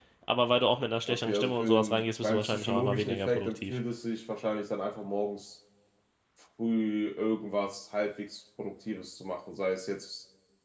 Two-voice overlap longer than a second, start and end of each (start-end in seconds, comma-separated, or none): 1.1-3.8